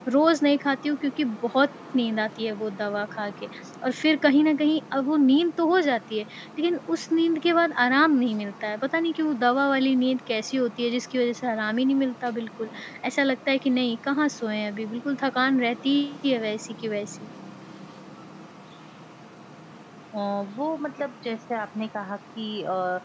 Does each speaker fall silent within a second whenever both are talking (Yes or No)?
Yes